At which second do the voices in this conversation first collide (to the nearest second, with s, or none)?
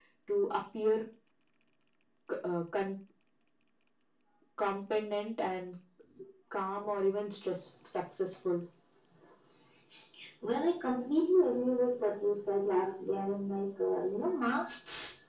none